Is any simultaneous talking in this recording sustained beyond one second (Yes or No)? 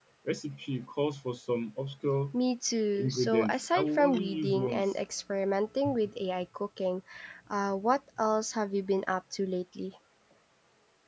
Yes